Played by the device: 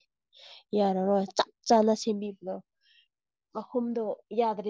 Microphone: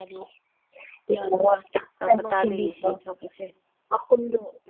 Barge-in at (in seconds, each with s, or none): 2.0 s